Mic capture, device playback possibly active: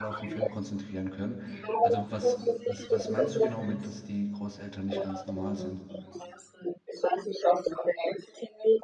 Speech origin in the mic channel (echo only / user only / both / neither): both